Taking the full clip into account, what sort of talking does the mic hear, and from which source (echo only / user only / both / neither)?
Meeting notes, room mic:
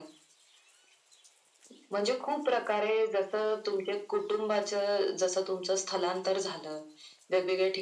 echo only